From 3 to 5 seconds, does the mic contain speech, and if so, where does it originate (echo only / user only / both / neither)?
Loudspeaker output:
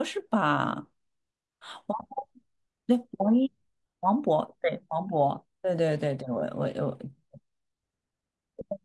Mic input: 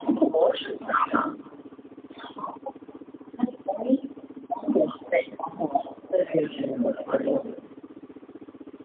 echo only